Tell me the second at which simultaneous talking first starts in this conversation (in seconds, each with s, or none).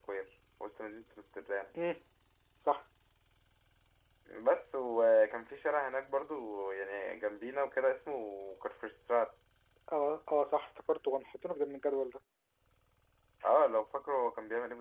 none